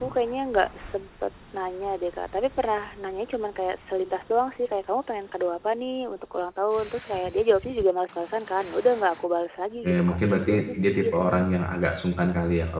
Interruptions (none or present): present